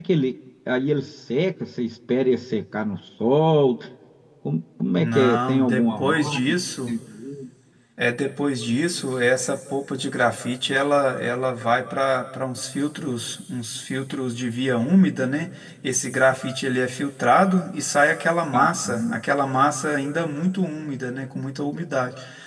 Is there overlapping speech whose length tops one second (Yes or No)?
Yes